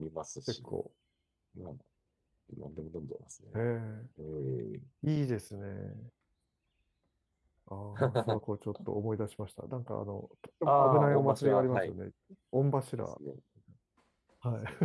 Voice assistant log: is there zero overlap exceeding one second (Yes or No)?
No